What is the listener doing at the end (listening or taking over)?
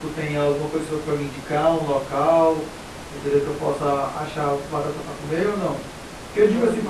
listening